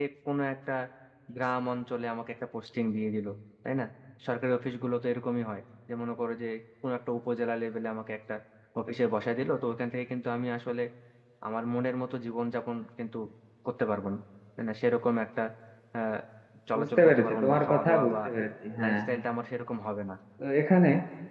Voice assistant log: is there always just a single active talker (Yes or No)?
No